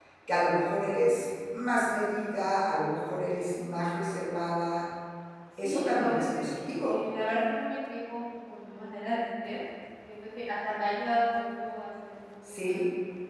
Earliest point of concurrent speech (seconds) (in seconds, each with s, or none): 5.6 s